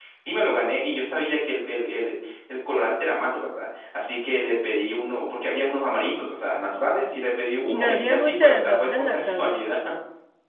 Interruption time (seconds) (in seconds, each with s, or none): 7.7 s